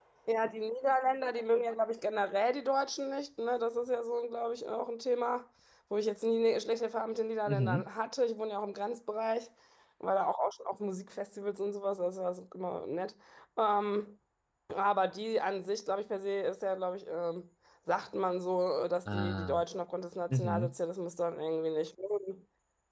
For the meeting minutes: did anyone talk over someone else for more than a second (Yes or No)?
No